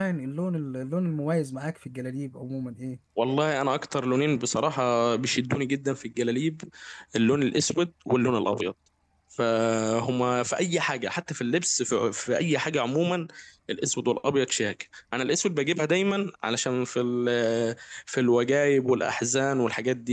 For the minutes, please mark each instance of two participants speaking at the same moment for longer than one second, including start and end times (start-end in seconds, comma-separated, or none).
none